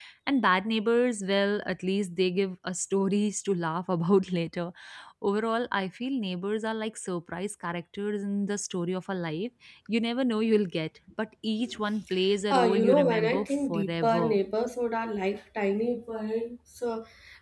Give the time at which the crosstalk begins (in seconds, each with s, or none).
12.5 s